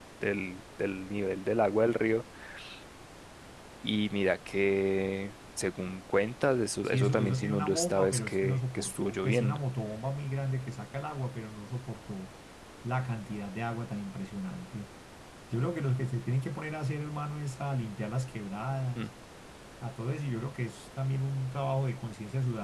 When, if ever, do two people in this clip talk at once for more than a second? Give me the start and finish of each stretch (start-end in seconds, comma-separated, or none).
6.8-9.6